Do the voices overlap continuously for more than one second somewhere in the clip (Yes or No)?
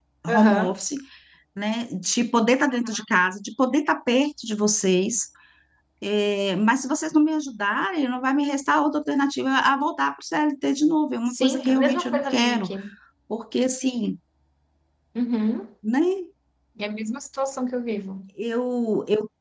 Yes